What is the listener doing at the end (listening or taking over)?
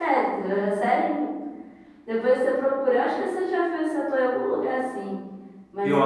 taking over